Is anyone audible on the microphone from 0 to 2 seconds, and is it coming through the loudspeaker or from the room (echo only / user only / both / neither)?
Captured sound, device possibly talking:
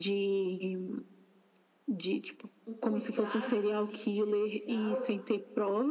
echo only